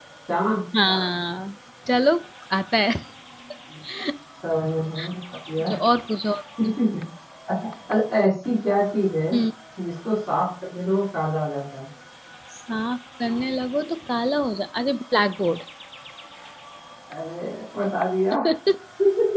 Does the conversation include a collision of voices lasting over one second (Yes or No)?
No